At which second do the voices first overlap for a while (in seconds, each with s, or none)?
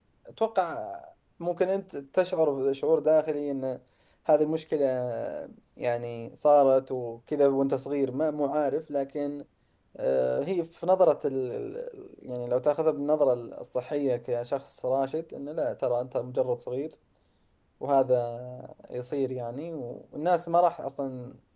none